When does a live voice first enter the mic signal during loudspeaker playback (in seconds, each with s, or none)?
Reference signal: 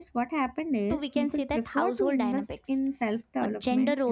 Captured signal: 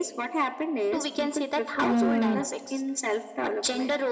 1.8 s